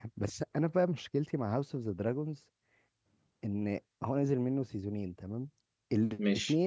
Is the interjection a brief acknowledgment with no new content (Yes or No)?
Yes